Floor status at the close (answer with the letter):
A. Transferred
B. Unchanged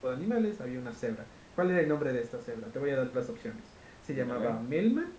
B